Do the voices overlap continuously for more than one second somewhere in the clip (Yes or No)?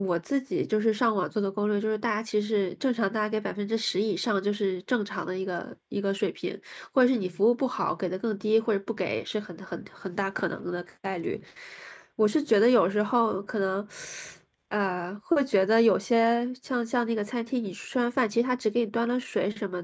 No